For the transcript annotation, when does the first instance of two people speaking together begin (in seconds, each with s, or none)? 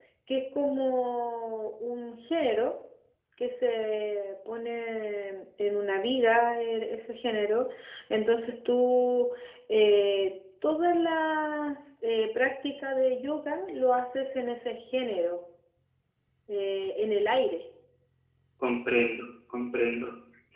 none